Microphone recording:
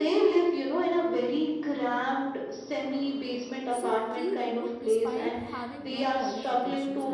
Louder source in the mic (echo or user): echo